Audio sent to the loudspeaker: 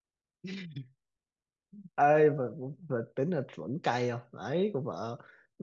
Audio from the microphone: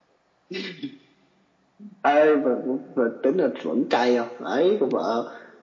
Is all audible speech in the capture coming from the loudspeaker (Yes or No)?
Yes